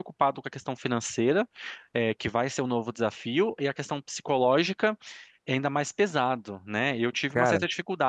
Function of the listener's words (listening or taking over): listening